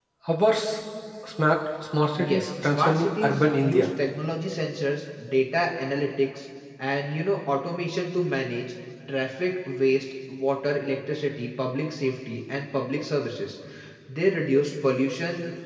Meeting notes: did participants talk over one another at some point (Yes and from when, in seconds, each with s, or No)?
Yes, from 2.2 s